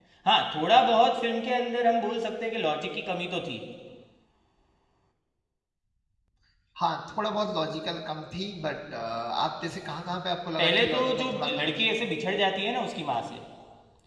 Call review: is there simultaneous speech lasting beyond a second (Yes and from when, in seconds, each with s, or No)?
Yes, from 10.6 s